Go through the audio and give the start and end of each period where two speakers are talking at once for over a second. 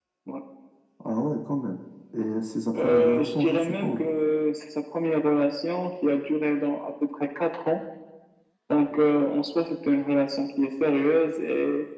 2.8-4.0

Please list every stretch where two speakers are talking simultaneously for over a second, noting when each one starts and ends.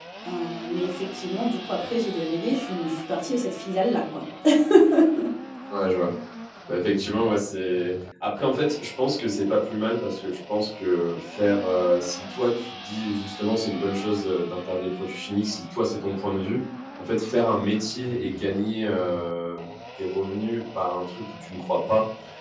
none

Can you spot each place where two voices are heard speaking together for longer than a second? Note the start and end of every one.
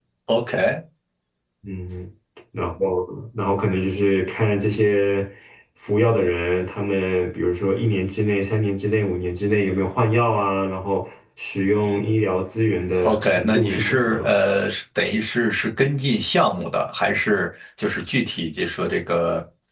13.0-14.3

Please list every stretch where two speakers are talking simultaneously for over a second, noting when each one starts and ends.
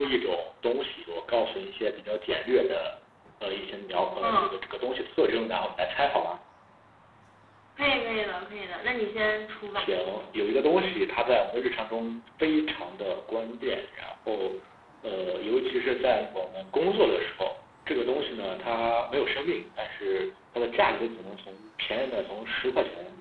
none

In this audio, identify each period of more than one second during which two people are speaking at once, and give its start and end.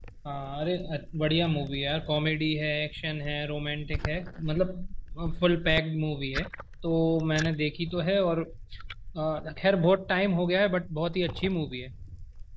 none

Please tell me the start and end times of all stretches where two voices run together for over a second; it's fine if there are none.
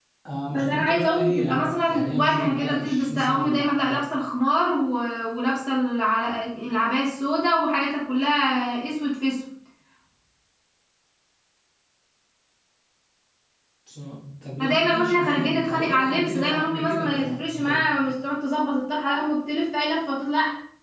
0.5-4.0, 14.6-17.7

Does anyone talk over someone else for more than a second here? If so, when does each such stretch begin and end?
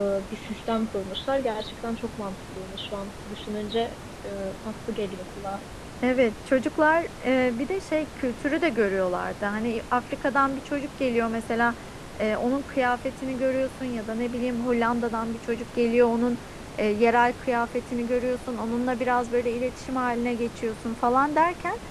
none

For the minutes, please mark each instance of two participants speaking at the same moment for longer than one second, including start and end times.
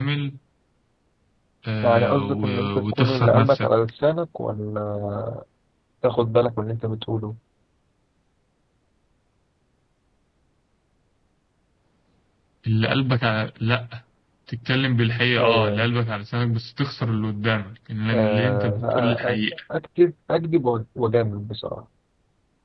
1.8-3.7, 18.1-19.4

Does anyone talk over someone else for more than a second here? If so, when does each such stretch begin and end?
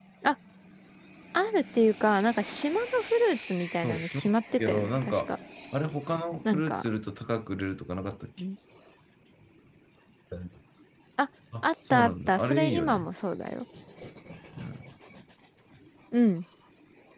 3.8-5.3, 11.6-13.1

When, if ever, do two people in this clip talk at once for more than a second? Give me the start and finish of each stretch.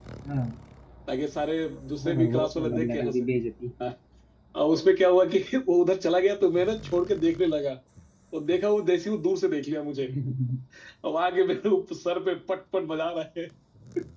2.0-3.2

